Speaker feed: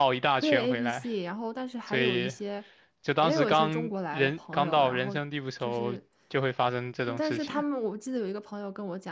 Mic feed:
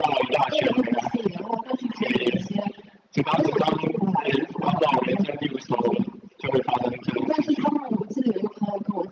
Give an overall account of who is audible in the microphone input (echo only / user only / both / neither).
echo only